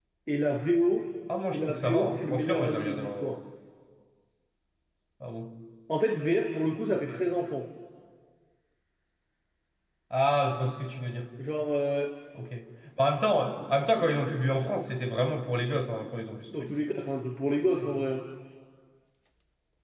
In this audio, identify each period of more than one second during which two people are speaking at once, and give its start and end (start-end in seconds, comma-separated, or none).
1.5-3.4